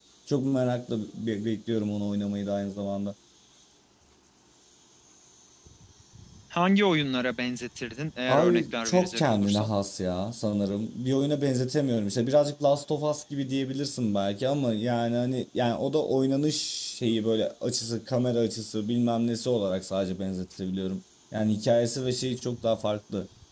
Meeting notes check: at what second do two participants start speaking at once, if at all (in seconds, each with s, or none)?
8.3 s